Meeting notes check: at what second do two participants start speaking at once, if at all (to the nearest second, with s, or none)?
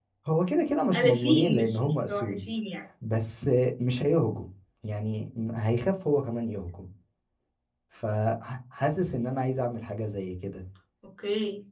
1 s